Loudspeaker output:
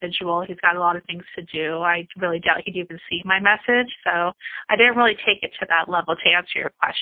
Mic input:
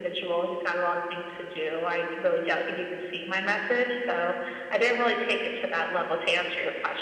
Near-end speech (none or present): none